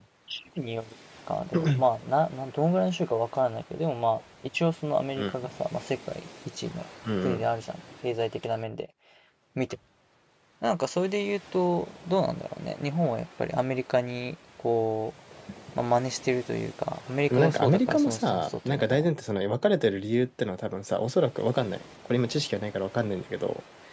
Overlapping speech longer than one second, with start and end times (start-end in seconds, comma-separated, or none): 17.3-19.1